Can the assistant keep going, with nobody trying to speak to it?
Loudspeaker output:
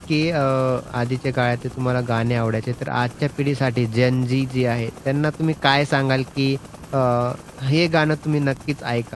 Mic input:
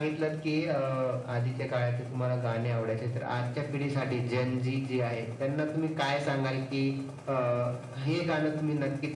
Yes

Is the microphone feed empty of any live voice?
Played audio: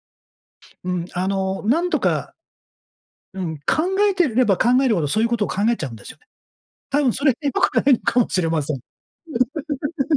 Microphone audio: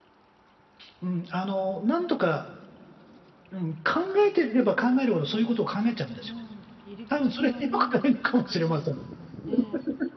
No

